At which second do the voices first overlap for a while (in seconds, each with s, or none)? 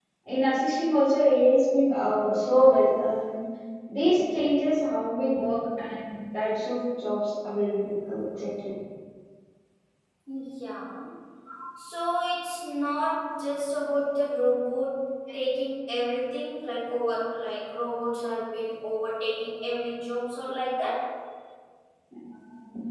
none